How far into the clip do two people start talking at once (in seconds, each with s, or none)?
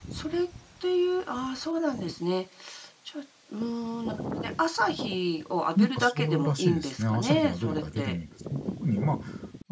5.8 s